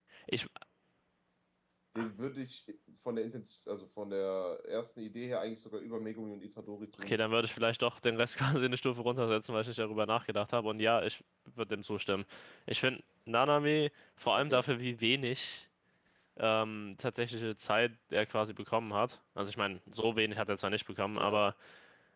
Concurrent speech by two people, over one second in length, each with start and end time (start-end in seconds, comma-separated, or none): none